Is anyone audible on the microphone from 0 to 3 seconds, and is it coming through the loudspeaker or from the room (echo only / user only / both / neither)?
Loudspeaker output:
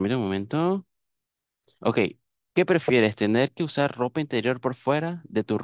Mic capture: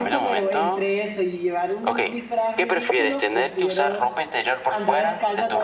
both